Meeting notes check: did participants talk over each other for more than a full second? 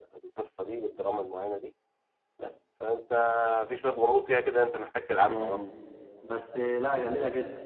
No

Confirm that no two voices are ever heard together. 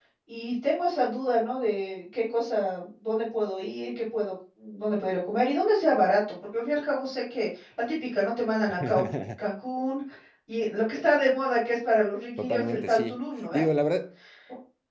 No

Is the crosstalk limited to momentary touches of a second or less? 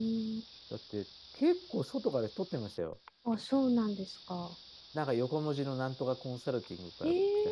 Yes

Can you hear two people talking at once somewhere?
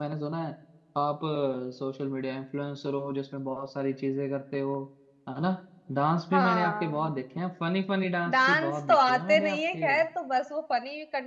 Yes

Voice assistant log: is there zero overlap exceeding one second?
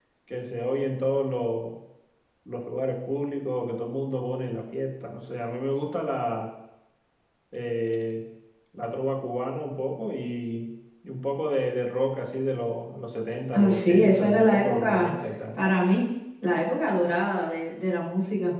No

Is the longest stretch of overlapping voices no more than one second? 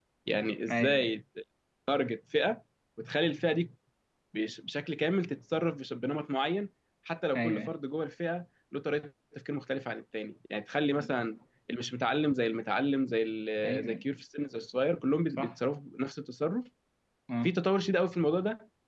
Yes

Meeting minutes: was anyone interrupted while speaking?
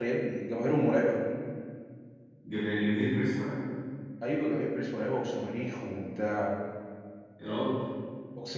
No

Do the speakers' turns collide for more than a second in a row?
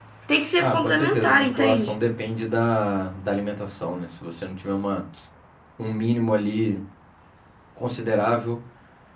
Yes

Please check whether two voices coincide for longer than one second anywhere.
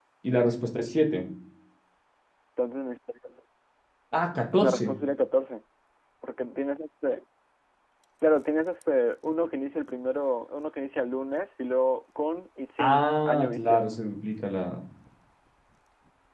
Yes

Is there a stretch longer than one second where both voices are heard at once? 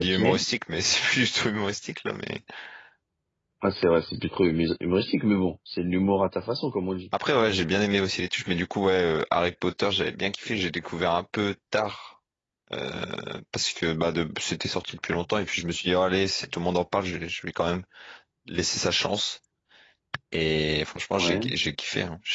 No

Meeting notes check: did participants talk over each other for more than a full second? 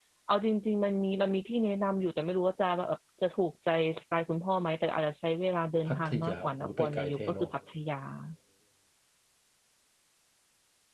Yes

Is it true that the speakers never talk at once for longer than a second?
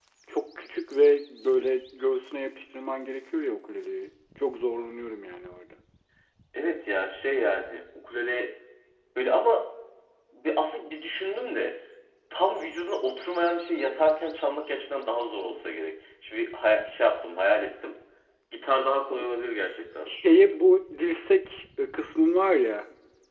Yes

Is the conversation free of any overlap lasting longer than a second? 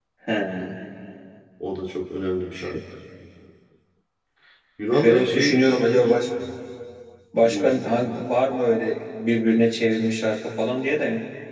No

